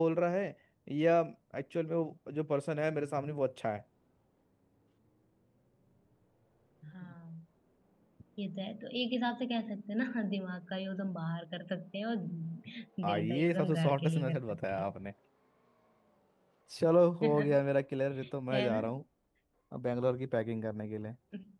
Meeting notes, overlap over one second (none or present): present